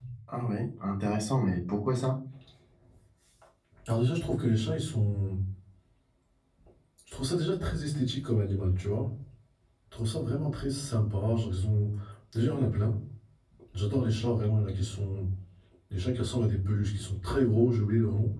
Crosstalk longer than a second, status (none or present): none